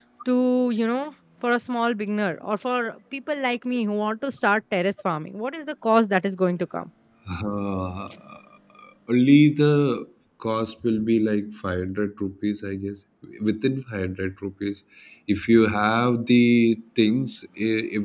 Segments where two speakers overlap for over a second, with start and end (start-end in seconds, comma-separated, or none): none